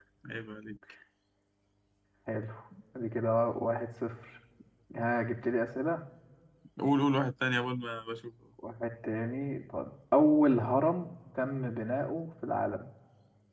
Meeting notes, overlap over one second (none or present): none